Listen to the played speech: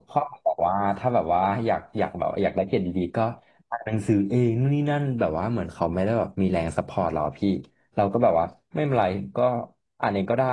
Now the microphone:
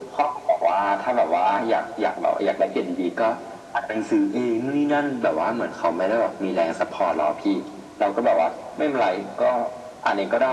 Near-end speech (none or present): none